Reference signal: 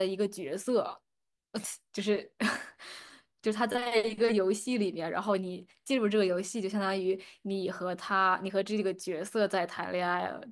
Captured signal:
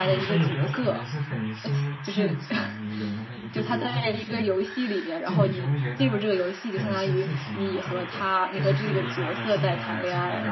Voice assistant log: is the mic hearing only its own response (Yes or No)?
No